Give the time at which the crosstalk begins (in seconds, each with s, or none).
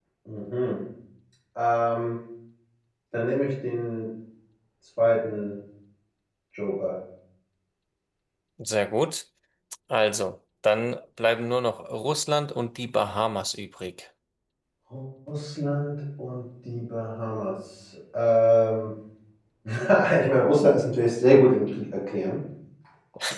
none